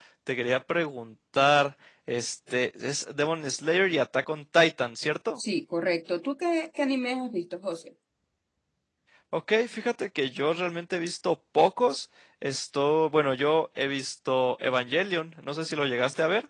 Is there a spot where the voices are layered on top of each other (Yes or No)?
No